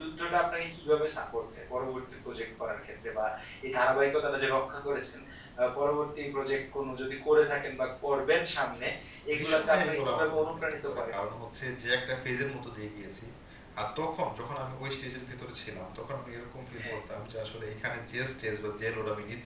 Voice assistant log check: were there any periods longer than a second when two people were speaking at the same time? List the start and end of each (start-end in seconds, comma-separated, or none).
9.4-11.1